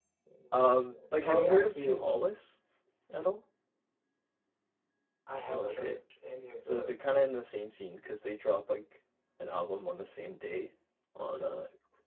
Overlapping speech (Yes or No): Yes